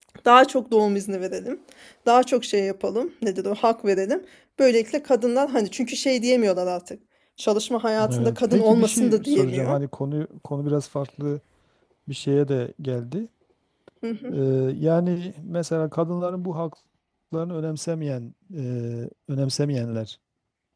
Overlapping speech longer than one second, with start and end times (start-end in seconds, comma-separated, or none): 8.1-9.8